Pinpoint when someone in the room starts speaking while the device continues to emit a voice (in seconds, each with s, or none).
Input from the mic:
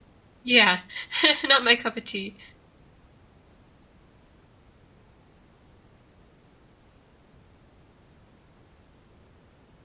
0.4 s